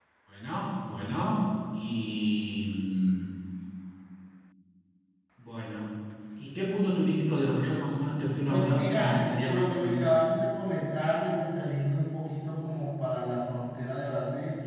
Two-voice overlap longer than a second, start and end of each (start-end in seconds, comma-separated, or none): 8.5-10.2